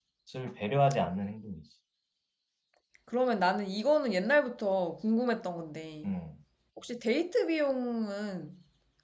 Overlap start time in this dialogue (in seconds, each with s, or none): none